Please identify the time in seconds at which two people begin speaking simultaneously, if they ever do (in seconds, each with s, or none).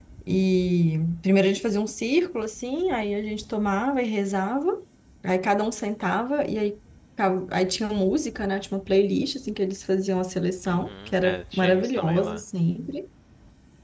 10.7 s